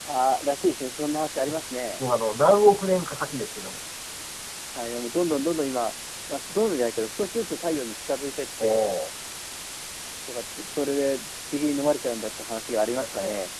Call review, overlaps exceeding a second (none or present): none